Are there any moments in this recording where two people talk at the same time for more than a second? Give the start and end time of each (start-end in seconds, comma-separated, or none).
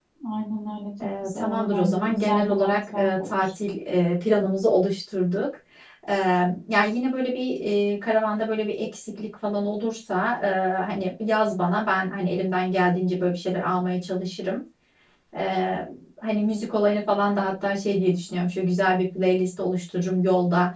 1.2-3.4